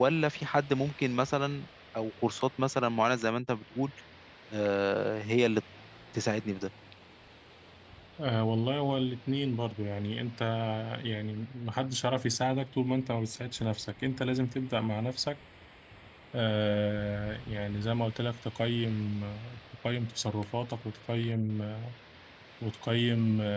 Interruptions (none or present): none